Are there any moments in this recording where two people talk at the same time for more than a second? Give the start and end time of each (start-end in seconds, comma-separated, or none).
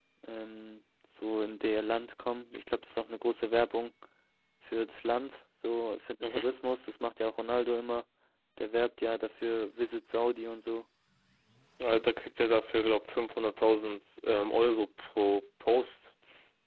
none